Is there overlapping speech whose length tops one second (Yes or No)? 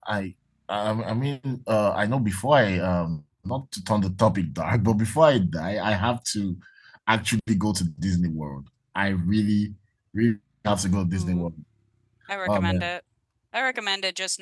No